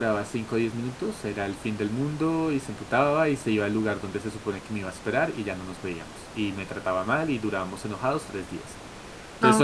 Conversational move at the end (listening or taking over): taking over